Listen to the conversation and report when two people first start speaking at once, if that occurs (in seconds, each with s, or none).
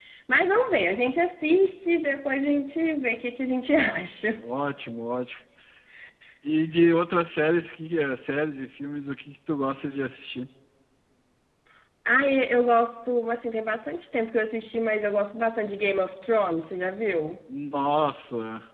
none